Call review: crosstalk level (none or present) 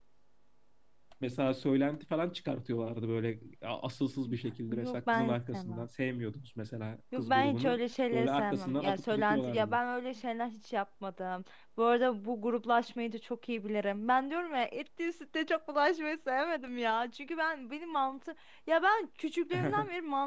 present